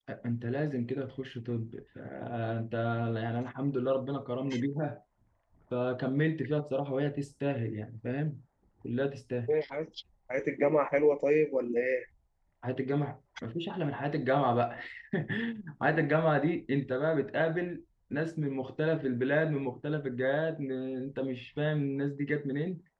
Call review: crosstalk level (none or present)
none